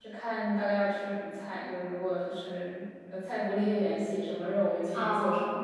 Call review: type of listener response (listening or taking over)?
taking over